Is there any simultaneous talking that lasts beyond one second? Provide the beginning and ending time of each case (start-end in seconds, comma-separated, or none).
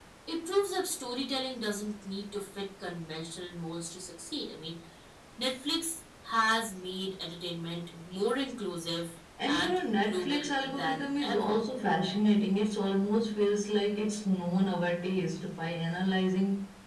9.5-11.6